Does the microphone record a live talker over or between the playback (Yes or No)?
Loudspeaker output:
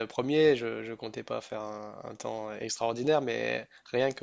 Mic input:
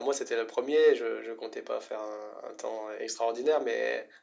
No